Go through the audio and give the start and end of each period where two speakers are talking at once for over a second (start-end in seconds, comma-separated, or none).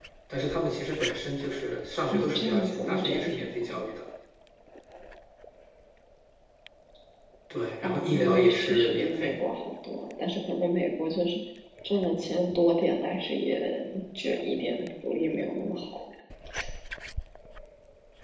2.1-3.8, 7.8-9.3